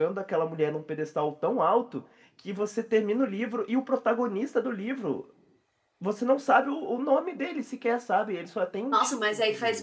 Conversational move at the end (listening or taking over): taking over